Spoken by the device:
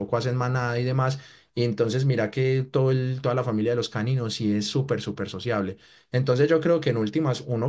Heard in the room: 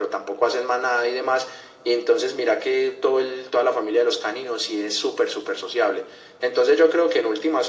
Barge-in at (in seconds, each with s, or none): none